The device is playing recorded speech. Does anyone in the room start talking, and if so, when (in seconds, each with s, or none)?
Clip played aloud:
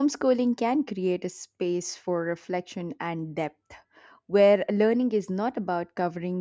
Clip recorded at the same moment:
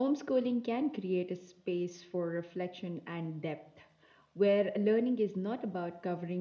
none